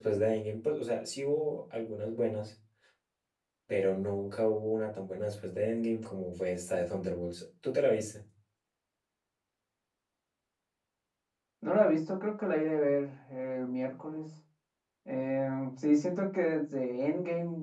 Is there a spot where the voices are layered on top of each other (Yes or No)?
No